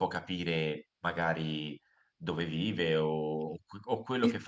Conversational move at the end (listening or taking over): listening